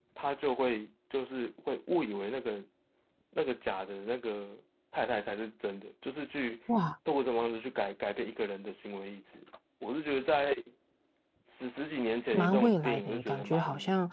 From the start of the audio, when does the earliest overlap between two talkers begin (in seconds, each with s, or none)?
12.3 s